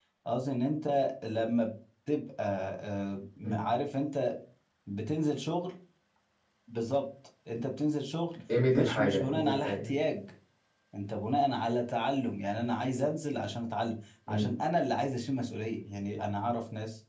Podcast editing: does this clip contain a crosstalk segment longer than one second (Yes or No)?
Yes